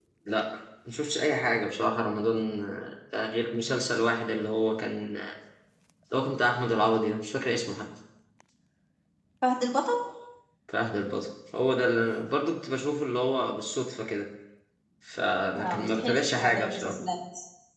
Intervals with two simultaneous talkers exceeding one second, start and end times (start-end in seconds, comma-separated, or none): 15.6-17.0